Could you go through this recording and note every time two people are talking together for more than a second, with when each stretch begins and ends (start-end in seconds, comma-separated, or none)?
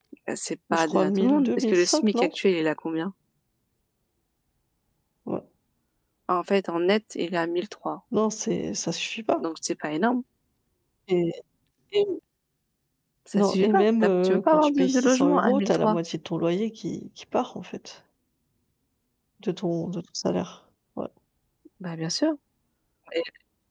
0.7-2.3, 13.4-16.0